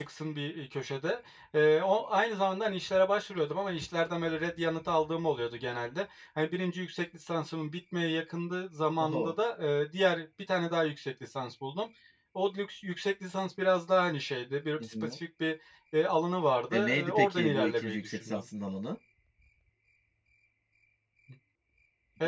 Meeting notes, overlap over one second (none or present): present